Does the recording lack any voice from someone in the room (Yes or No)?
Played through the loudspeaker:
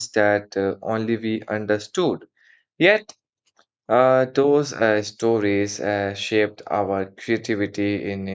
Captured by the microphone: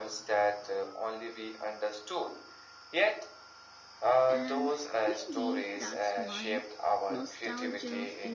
No